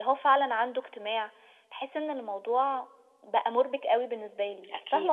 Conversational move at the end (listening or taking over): taking over